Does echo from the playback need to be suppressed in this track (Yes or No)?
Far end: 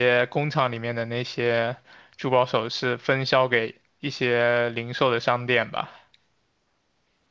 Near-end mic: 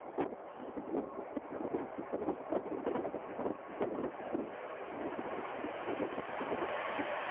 No